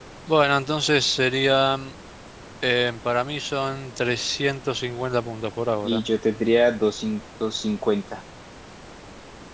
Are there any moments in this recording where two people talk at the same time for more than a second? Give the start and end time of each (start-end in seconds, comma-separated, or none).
none